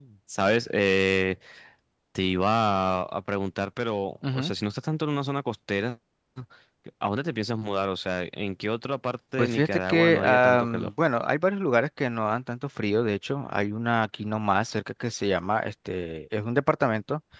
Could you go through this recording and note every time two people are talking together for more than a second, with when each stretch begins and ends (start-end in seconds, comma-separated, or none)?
9.4-10.9